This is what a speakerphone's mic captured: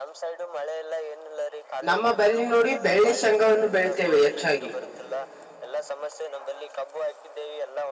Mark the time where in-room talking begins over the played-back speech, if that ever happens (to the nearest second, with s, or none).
2 s